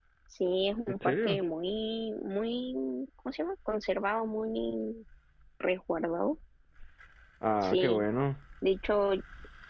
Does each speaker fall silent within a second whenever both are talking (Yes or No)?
Yes